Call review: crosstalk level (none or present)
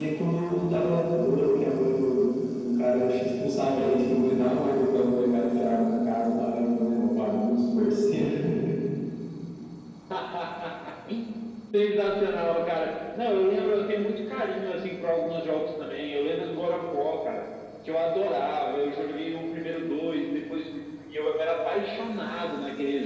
none